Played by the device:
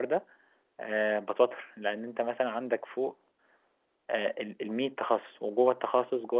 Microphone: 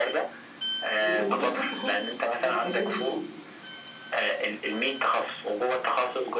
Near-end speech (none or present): present